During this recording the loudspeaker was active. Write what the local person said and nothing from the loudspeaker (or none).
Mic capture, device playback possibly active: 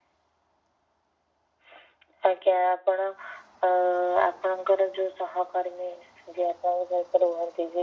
none